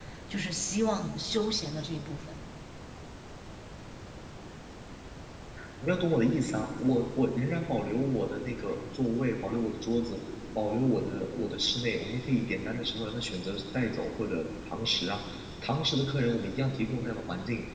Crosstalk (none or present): none